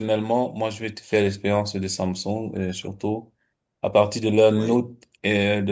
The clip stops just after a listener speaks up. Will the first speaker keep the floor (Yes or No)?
Yes